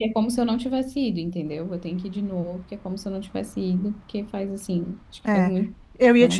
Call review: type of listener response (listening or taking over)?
taking over